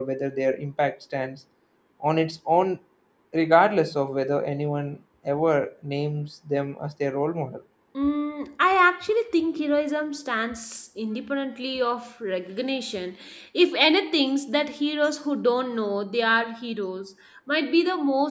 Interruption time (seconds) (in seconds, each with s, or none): none